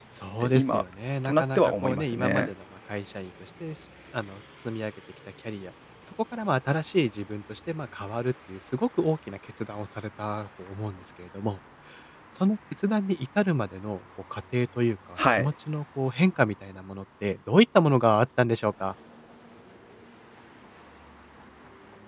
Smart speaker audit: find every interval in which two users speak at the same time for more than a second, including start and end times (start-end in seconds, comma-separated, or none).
1.2-2.5